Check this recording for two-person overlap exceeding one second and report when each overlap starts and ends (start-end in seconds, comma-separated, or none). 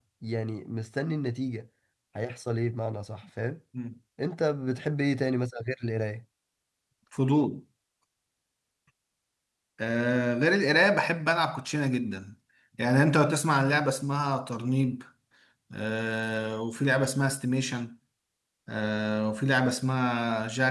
none